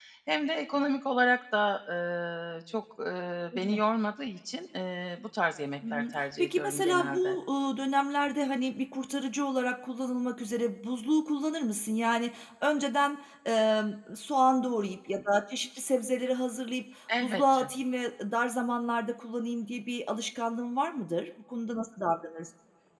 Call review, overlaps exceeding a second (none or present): present